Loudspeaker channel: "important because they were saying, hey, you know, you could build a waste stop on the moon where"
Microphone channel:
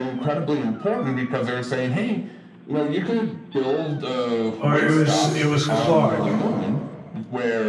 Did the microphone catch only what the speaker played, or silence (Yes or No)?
No